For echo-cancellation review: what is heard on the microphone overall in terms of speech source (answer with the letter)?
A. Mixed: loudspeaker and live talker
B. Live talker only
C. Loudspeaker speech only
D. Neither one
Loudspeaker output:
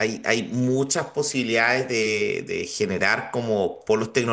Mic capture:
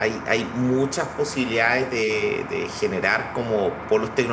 C